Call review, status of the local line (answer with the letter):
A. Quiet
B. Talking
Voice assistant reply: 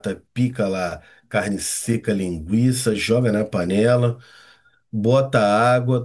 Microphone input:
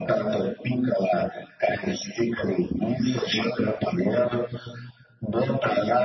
A